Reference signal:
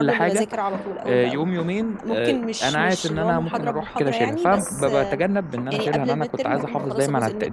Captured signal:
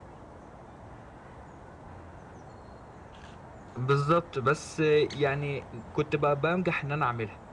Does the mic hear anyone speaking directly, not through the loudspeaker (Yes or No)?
Yes